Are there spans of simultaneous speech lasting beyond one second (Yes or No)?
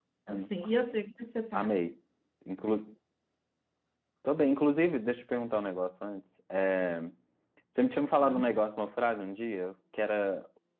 No